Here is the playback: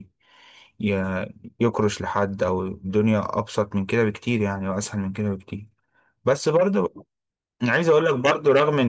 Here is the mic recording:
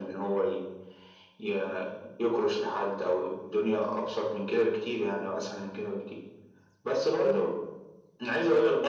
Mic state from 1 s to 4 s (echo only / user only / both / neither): echo only